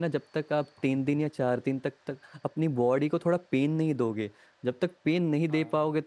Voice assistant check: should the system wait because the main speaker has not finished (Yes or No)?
Yes